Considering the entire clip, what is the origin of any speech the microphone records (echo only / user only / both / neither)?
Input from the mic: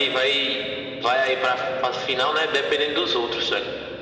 echo only